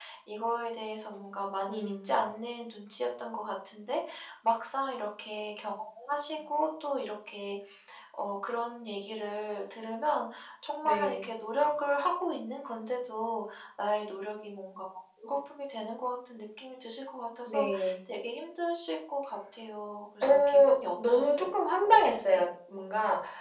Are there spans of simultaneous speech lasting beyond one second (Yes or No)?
Yes